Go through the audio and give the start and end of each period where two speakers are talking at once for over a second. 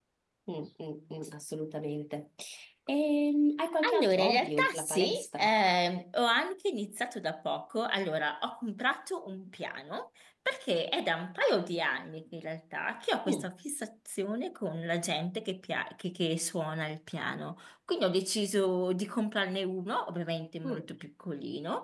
4.0-5.5

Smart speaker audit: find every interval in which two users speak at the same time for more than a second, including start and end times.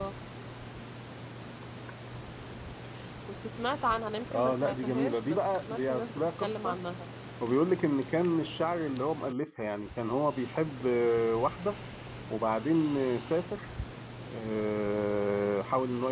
4.3-6.8

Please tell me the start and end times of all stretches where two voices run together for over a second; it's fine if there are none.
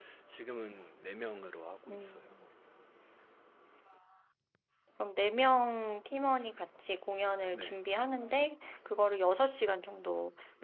none

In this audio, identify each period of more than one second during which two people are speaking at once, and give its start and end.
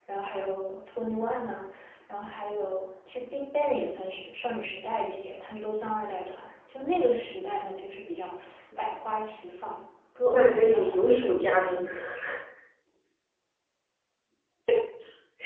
10.2-11.8

